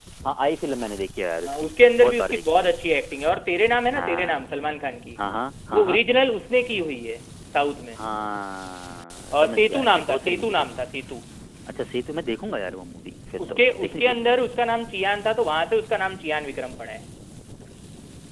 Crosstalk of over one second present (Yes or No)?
Yes